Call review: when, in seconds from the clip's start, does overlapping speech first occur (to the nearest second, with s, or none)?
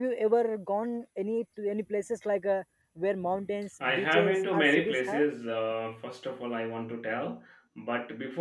4 s